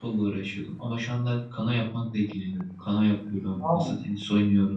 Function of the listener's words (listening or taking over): listening